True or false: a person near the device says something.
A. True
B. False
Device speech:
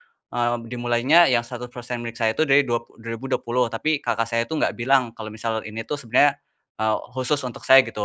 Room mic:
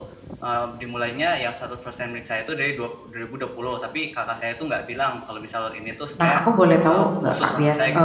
A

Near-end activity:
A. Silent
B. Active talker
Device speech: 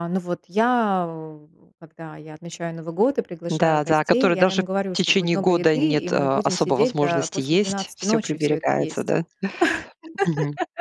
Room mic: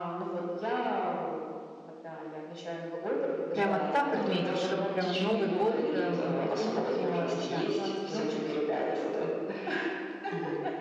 B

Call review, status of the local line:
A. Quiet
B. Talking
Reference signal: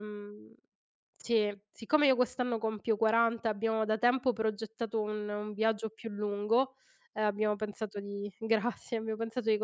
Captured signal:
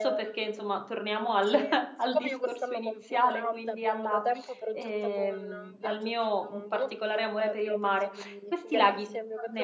B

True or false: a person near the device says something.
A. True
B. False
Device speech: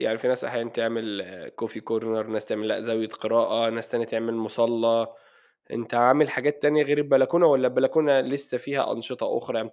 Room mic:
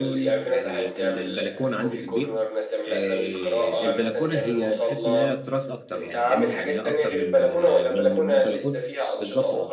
A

